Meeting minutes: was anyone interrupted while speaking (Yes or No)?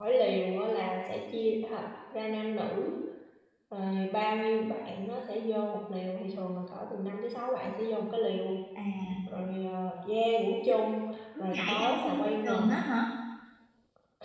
Yes